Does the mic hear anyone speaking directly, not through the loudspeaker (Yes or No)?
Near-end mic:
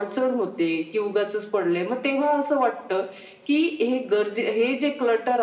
No